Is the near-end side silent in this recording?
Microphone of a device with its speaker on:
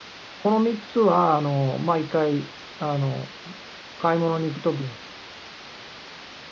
No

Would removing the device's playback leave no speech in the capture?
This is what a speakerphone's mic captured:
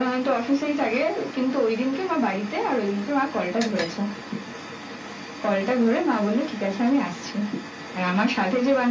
Yes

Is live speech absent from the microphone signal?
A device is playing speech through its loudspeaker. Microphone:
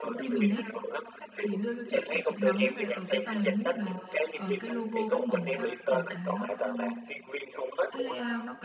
No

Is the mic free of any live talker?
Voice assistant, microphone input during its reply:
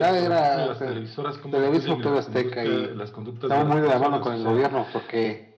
Yes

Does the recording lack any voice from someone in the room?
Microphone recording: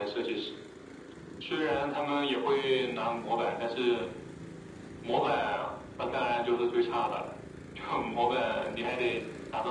Yes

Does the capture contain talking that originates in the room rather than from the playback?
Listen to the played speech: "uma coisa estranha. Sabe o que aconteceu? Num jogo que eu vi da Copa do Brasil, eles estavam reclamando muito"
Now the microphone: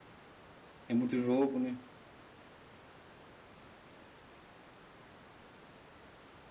Yes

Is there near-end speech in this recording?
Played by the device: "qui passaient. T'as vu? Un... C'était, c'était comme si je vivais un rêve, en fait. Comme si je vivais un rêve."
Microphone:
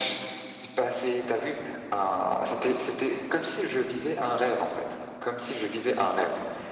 No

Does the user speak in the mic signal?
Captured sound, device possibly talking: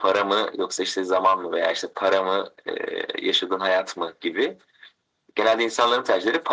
No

